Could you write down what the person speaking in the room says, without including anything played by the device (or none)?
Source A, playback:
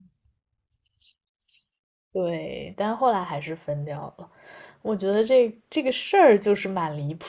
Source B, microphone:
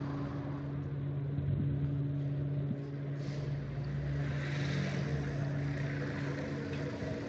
none